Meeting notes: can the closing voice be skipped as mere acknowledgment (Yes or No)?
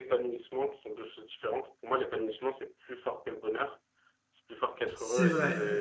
Yes